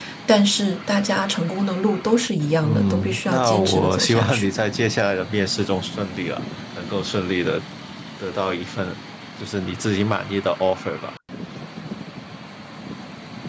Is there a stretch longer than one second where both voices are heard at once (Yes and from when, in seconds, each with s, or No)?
Yes, from 2.6 s